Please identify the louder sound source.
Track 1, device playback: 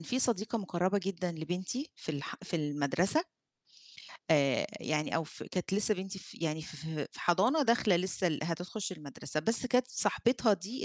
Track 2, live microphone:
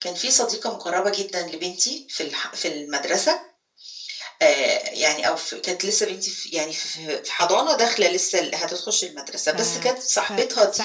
echo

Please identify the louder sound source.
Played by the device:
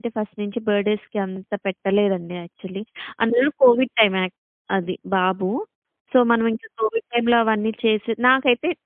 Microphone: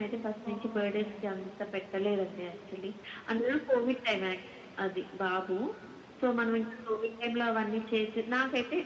echo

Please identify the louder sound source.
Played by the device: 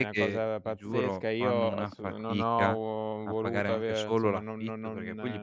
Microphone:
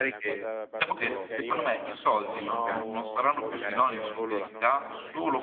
user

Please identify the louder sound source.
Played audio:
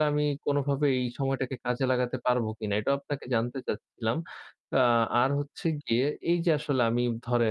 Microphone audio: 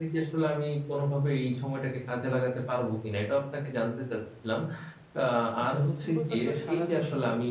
echo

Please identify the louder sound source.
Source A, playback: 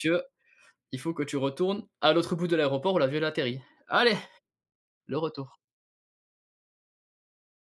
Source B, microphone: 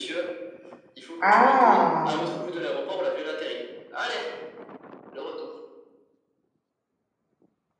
user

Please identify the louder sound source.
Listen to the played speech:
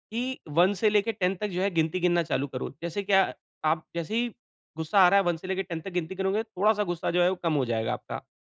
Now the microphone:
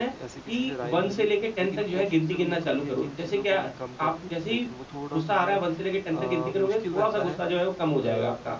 echo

